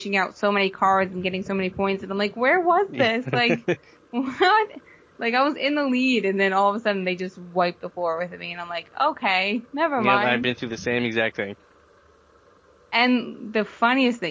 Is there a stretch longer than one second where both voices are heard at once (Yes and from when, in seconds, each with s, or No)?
No